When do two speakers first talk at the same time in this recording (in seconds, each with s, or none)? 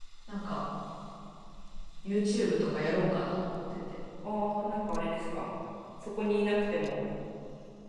none